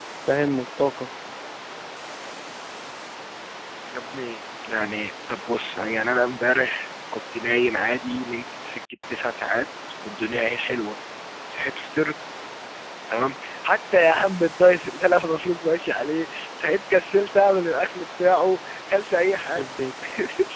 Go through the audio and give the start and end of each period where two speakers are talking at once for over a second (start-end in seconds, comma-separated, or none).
none